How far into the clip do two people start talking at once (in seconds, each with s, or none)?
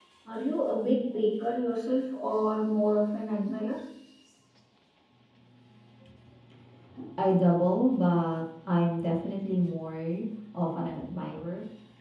none